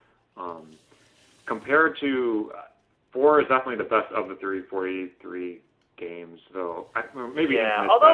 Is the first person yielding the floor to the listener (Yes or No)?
Yes